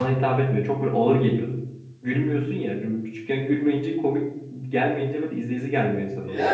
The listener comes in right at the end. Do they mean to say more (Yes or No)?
Yes